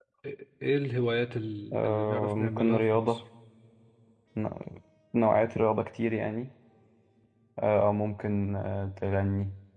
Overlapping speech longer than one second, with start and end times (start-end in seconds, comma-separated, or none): 1.7-3.2